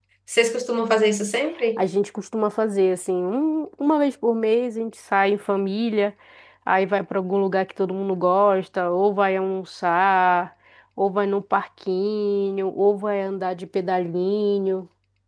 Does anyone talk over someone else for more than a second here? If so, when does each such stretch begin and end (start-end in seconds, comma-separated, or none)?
none